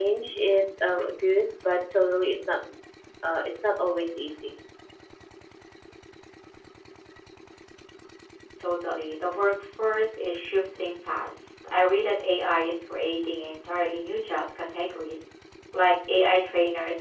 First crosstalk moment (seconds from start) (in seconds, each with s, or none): none